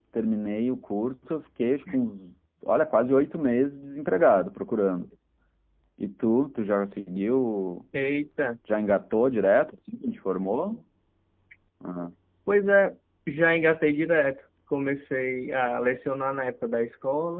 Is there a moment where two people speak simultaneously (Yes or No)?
No